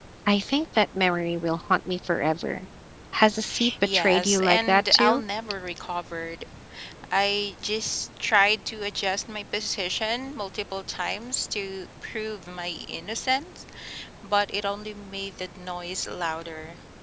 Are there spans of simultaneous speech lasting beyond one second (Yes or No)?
Yes